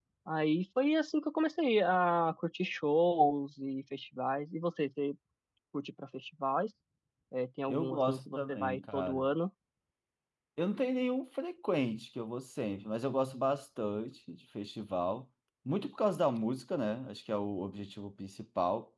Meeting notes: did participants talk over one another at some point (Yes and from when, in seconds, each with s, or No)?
Yes, from 7.7 s